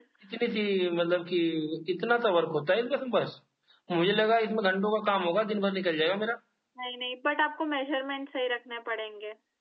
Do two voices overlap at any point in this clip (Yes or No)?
No